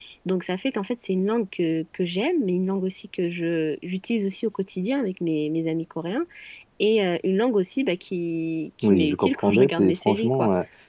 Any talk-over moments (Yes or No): Yes